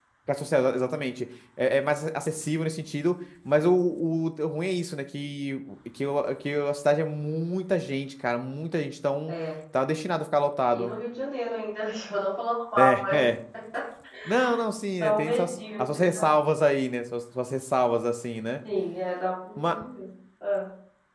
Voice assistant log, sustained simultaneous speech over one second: present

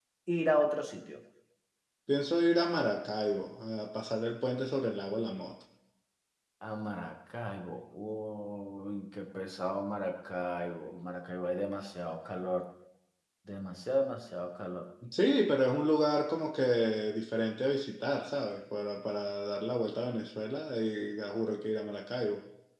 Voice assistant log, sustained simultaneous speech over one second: none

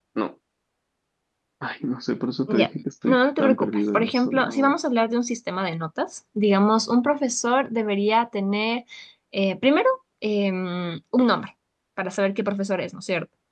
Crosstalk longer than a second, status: present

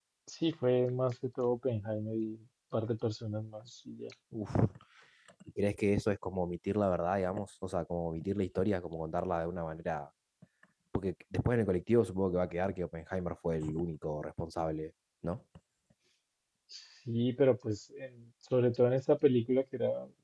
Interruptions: none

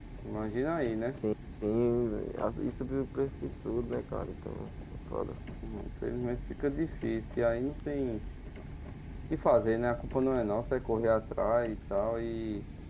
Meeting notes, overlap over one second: none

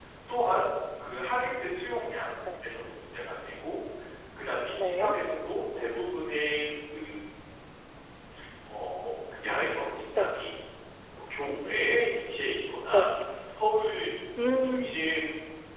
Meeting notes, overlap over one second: none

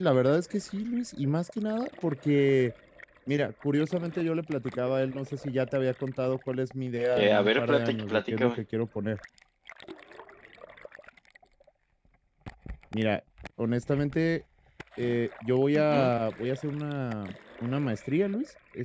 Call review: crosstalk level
present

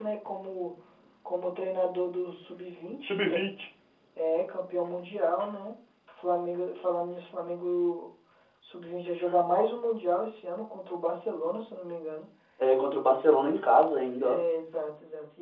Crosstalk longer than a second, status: none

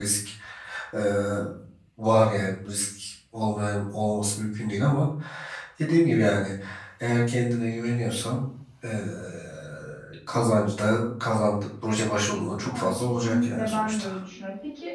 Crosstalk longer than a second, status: present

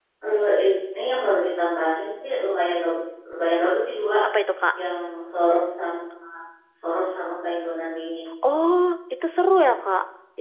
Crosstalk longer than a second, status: none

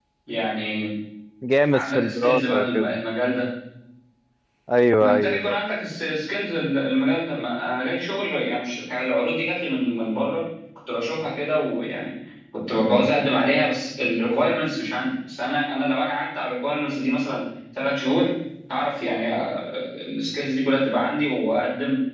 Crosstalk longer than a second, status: present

